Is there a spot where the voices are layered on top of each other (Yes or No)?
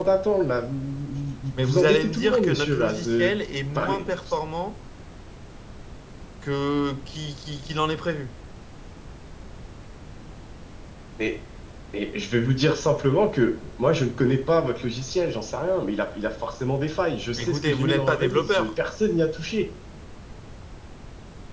Yes